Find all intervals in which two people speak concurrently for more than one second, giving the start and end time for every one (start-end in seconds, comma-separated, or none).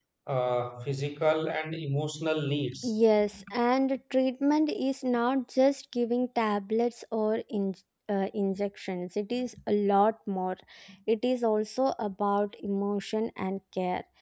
none